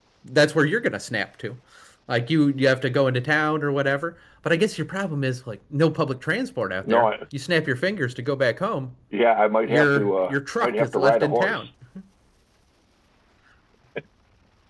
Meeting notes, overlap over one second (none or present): present